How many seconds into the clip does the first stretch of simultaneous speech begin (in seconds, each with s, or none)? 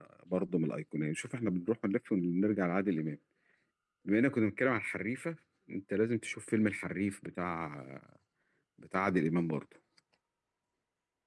none